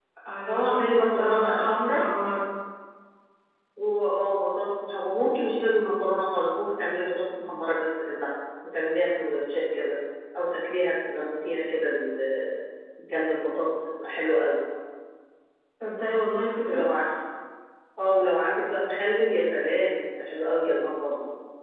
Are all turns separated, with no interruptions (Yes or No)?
No